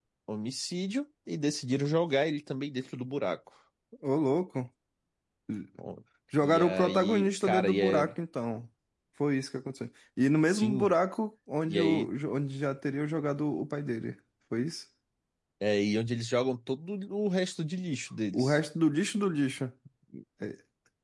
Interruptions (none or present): present